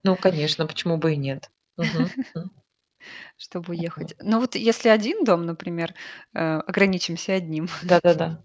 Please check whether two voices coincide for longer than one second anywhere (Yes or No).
No